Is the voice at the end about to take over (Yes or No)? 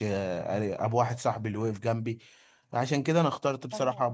No